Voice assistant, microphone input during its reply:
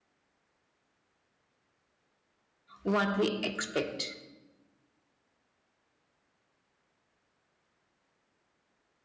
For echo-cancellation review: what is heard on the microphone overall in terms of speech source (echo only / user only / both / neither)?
user only